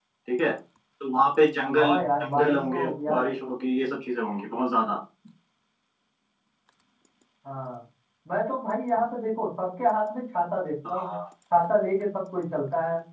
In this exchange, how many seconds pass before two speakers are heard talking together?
1.8 s

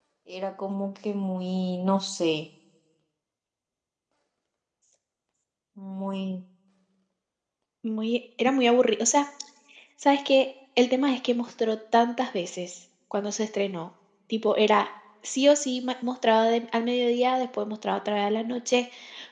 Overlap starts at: none

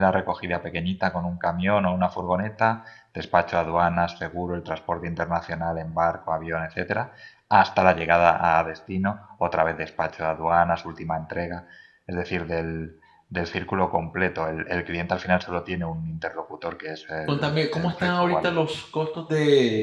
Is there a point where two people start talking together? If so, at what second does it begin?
17.3 s

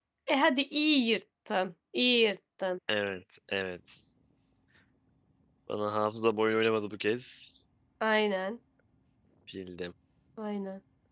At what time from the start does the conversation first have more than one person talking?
none

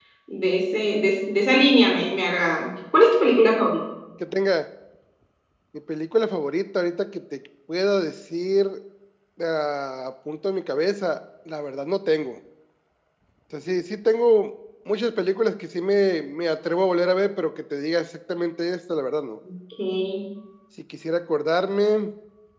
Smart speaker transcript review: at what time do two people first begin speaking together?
none

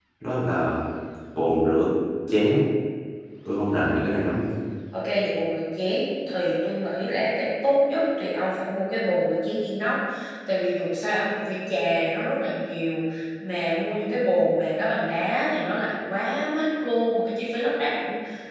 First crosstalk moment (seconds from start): none

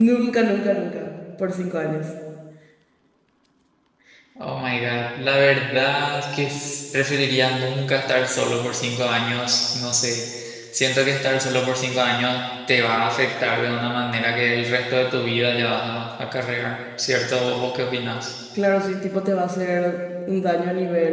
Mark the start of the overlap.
none

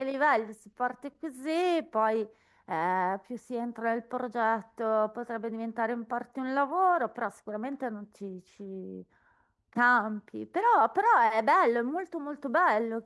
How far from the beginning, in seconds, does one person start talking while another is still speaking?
none

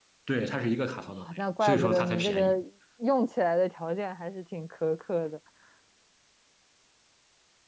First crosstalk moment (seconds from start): 1.2 s

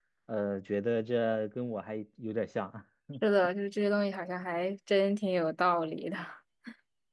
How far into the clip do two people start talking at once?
none

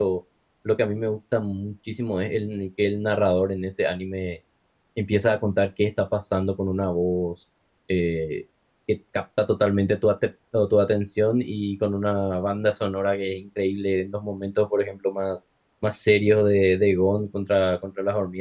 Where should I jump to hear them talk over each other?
none

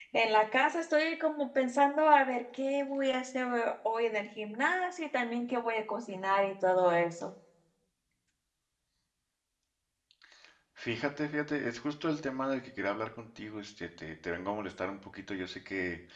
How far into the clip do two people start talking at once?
none

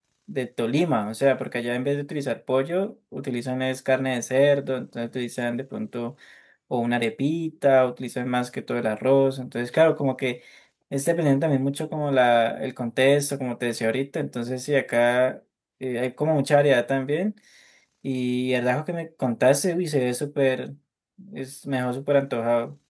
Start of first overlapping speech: none

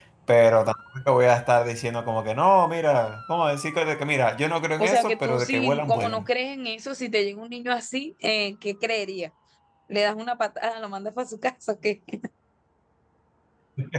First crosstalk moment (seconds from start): 4.8 s

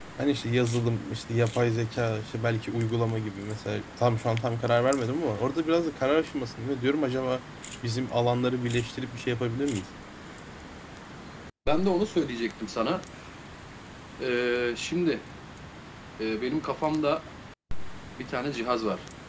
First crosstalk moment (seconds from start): none

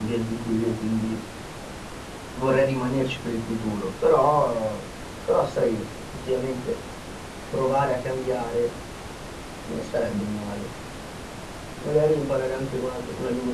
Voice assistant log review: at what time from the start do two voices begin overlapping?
none

